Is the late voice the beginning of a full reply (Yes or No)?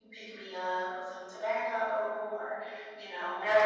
No